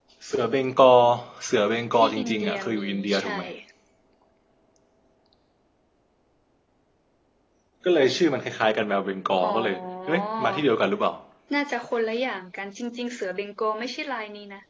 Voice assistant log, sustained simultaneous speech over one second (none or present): present